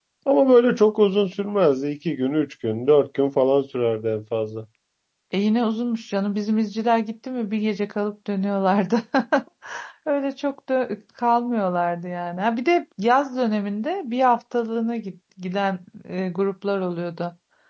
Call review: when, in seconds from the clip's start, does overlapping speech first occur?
none

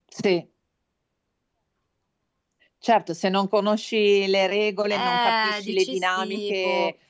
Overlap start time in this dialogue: 4.9 s

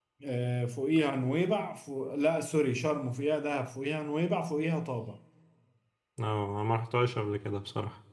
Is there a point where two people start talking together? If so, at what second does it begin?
none

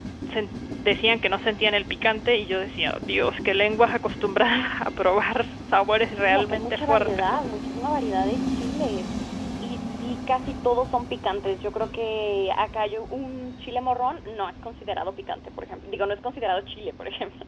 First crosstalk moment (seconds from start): 6.1 s

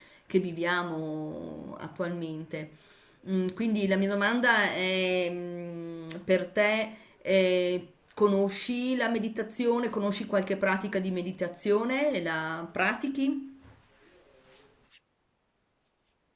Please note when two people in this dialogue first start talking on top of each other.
none

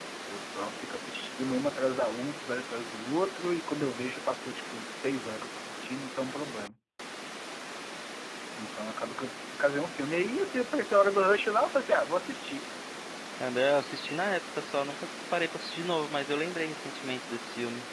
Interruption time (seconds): none

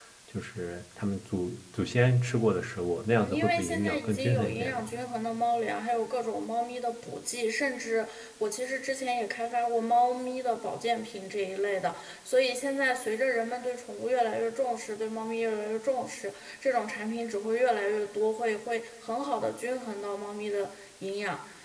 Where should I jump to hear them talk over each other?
3.1 s

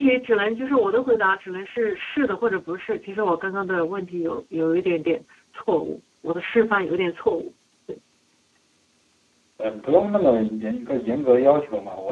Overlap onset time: none

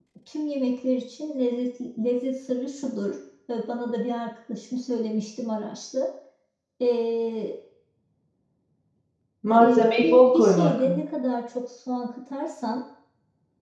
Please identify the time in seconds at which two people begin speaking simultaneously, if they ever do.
9.6 s

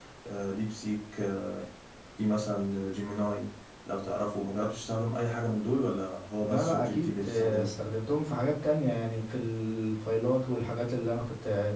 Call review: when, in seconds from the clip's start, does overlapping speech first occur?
6.4 s

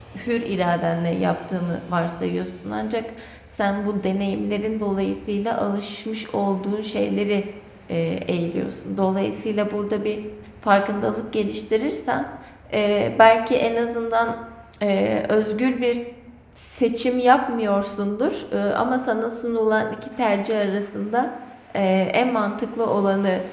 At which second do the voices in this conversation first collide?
none

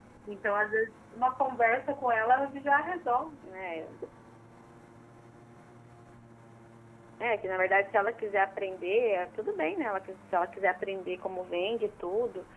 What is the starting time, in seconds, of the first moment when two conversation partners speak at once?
none

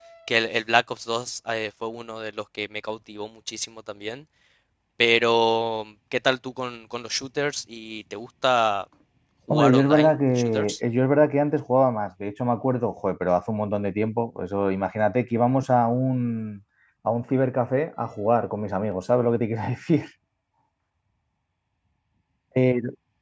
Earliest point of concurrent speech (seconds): 9.5 s

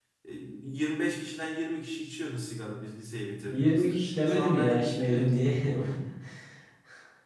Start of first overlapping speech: 3.5 s

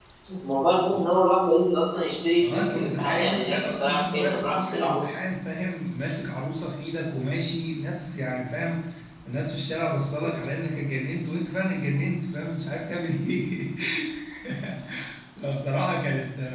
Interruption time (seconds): 2.4 s

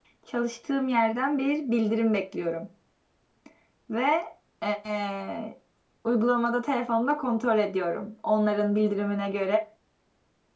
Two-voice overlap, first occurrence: none

